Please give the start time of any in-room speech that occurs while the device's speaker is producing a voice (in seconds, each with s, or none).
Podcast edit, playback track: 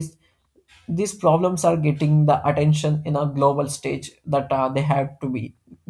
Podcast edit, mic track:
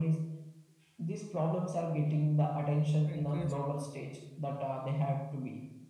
3.0 s